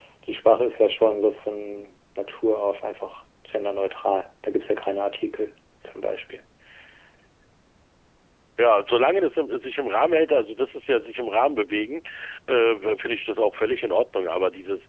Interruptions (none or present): none